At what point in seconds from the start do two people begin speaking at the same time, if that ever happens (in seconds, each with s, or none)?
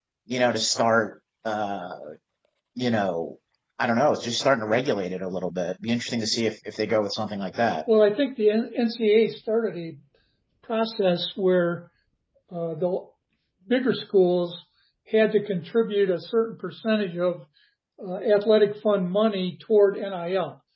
none